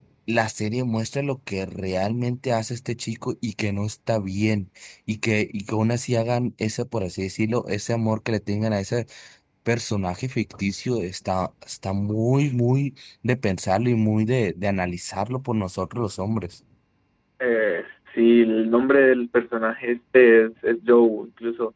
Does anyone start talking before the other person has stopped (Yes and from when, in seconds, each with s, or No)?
No